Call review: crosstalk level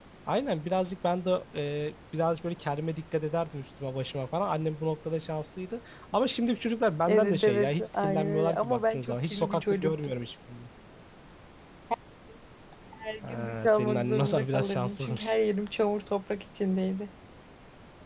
present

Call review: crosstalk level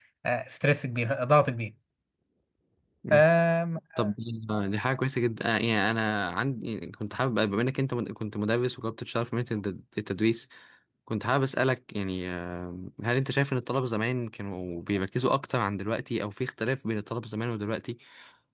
none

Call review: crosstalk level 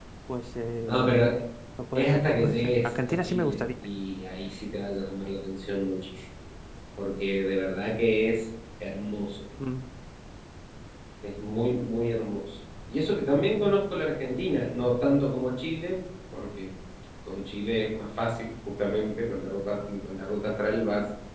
present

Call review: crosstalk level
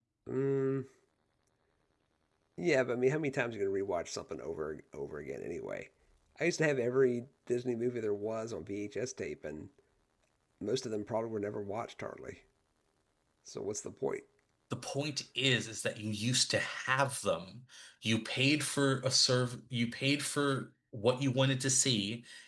none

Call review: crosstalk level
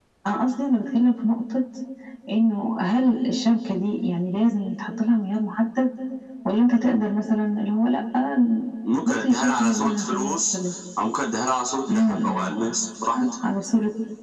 present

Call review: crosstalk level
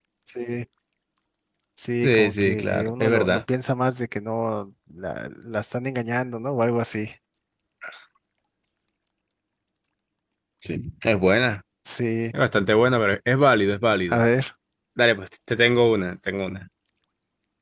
present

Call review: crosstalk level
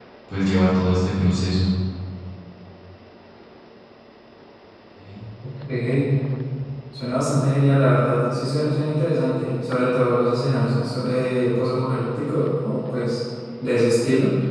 none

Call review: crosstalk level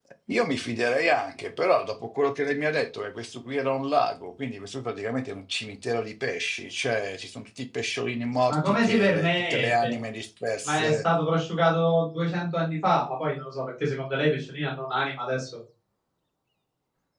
present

